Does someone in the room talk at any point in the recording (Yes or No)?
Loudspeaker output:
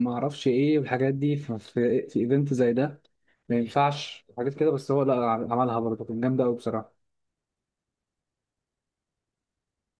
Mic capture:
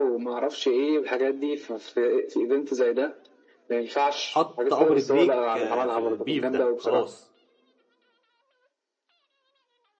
Yes